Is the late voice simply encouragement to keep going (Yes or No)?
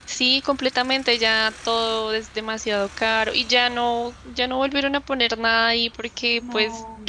Yes